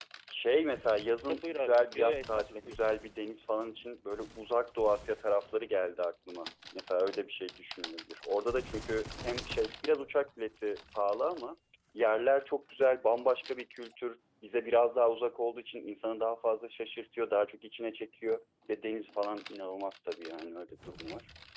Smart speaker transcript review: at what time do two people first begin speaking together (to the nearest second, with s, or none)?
1 s